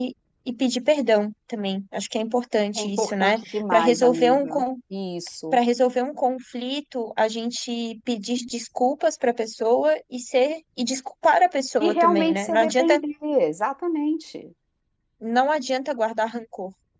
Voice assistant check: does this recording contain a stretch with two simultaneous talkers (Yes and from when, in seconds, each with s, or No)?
Yes, from 2.8 s